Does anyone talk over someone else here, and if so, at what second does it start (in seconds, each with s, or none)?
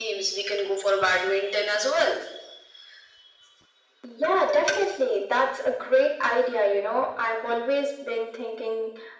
none